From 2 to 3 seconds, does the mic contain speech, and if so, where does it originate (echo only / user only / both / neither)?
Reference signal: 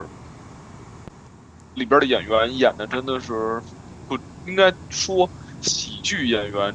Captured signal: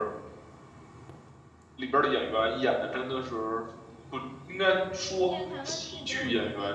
echo only